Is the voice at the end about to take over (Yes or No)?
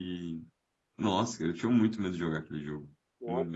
Yes